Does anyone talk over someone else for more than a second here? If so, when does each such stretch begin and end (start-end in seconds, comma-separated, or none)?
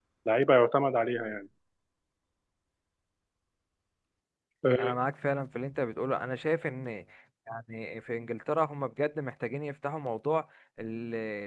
none